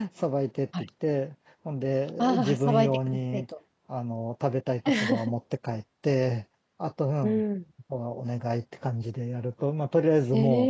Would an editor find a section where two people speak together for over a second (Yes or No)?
Yes